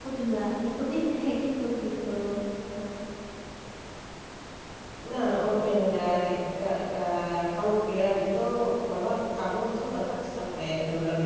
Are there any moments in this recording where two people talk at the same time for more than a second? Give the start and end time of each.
none

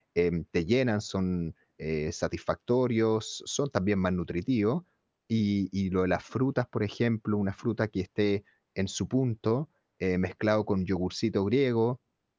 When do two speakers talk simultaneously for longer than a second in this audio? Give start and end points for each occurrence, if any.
none

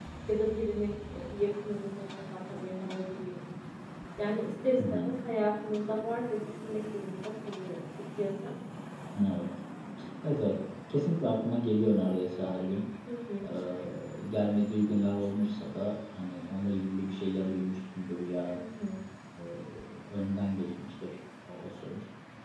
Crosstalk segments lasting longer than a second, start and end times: none

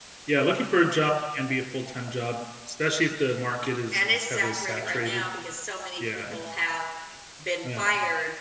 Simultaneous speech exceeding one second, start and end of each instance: 3.9-5.3

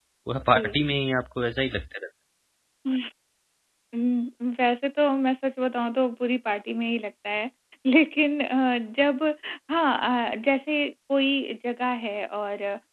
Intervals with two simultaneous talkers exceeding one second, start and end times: none

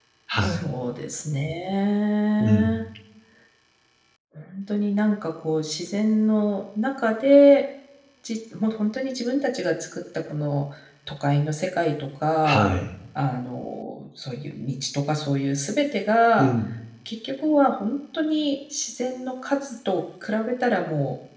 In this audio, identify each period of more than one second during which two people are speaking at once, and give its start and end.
none

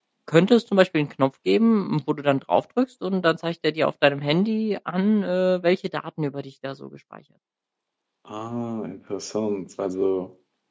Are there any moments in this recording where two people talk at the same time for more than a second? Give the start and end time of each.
none

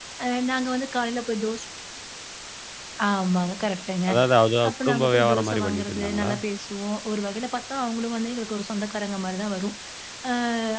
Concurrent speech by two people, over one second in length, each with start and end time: 4.7-6.3

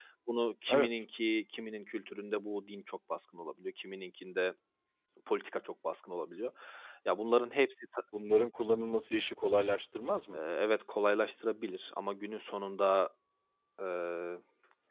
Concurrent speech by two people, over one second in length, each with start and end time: none

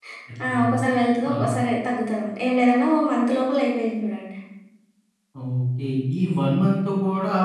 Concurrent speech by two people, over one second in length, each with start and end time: none

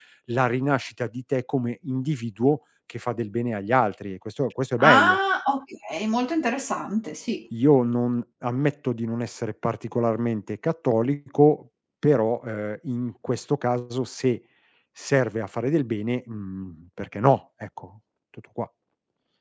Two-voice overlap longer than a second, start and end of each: none

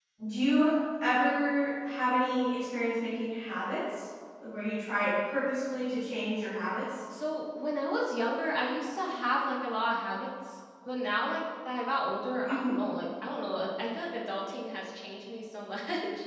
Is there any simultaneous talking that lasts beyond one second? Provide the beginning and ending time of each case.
none

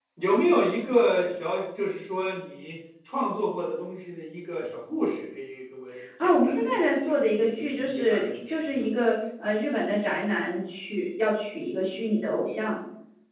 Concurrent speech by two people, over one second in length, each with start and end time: 6.2-8.8

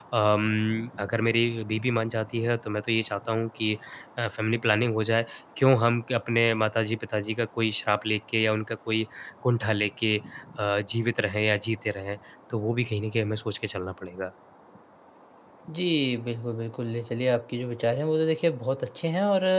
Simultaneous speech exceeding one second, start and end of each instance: none

